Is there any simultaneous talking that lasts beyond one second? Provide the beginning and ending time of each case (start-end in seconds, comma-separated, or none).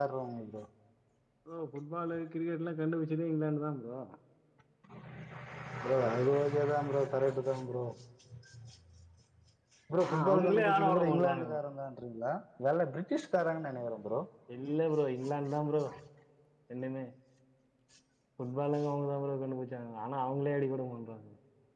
10.1-11.6